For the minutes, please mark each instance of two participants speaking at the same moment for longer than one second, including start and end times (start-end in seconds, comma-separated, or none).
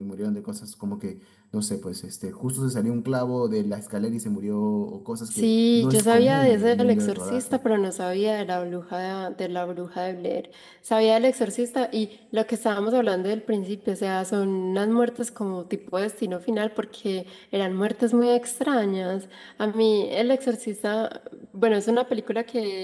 5.3-7.6